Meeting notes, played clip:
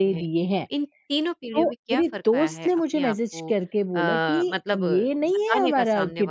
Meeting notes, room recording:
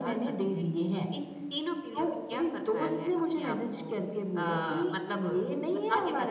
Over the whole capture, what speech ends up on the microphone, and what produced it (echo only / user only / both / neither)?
echo only